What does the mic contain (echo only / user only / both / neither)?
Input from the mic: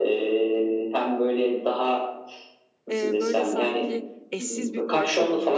both